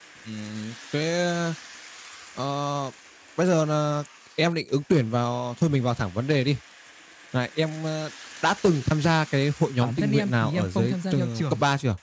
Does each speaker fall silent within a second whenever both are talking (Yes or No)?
No